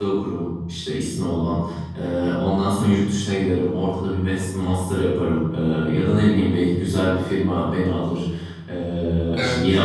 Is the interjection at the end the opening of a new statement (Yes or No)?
No